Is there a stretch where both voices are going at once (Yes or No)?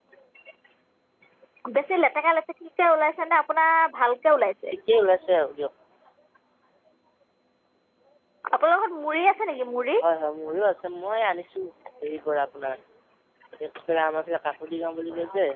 No